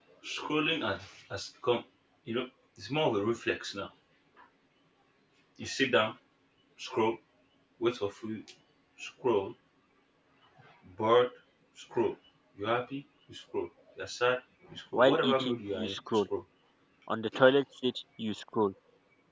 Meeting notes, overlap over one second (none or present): present